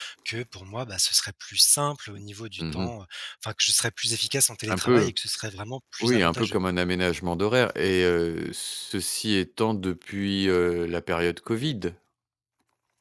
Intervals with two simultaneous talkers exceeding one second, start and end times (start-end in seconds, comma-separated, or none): none